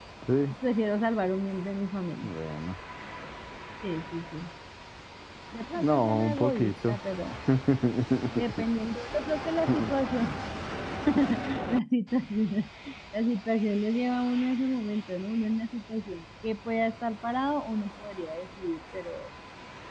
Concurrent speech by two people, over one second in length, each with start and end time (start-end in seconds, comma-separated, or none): 5.8-7.0